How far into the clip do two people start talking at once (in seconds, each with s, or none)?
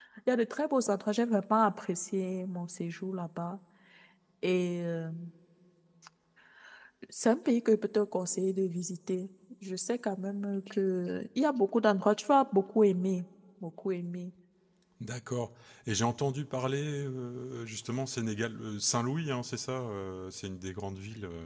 none